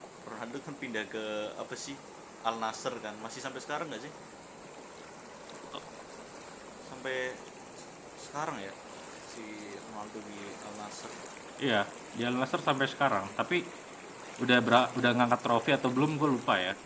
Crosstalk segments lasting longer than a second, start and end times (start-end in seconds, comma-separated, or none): none